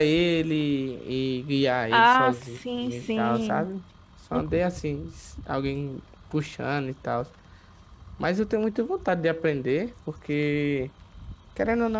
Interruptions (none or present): present